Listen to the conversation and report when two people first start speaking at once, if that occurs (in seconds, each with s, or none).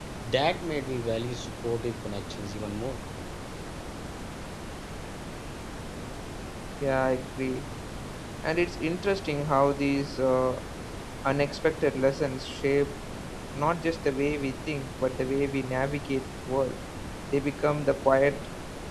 none